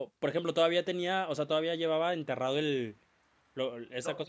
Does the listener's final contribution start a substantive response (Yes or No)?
No